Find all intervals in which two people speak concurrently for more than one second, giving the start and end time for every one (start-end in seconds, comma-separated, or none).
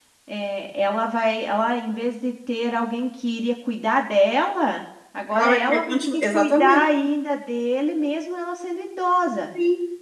5.3-6.8